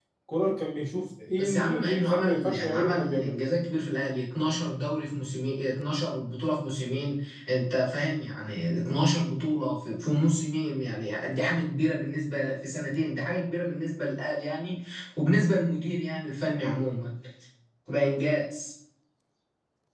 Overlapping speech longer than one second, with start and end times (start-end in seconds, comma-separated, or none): 1.4-3.4